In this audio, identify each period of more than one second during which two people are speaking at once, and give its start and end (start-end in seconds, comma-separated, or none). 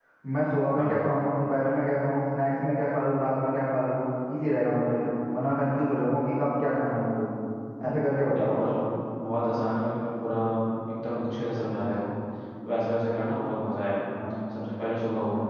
none